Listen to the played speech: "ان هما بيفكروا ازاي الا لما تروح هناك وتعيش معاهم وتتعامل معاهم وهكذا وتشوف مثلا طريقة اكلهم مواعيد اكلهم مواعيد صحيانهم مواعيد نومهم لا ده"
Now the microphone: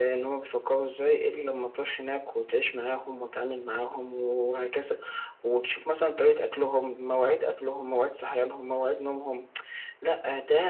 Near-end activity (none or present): none